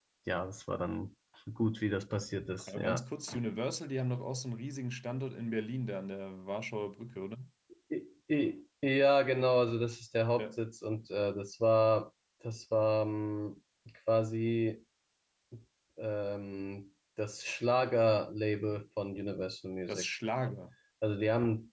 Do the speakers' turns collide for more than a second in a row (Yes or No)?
No